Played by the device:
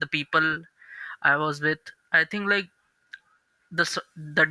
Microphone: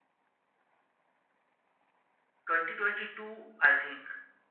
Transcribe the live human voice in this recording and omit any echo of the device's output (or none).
2022 I think